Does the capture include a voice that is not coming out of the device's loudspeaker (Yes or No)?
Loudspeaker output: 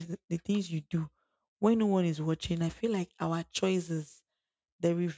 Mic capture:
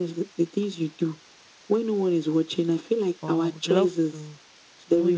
Yes